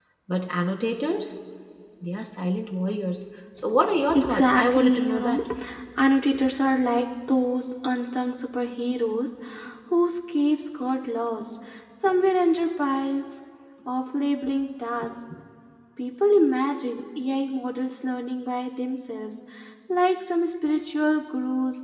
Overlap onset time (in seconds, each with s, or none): 4.1 s